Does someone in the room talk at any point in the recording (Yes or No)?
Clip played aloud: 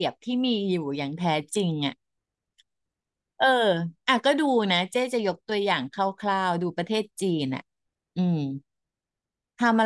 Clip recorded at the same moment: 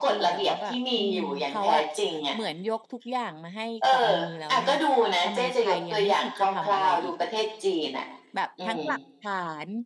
Yes